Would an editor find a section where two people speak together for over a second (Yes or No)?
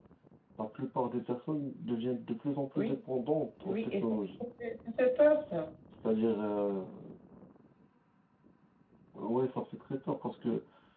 No